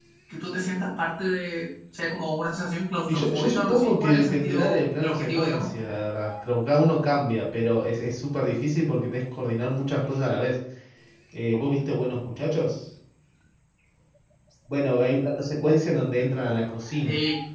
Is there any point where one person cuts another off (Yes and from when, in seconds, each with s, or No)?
Yes, from 3.1 s